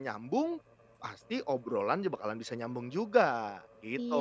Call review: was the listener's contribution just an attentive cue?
No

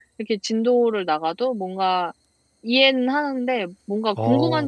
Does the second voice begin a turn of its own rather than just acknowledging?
No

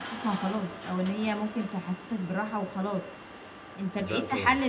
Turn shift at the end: No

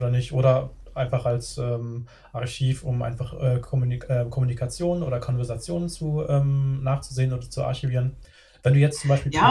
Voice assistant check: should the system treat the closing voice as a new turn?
Yes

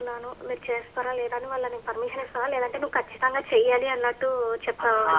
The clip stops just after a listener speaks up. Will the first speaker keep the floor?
No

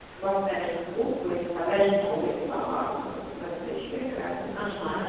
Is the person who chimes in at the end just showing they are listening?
No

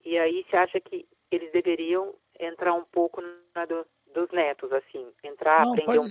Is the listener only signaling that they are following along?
No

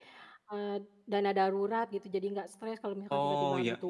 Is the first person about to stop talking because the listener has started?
Yes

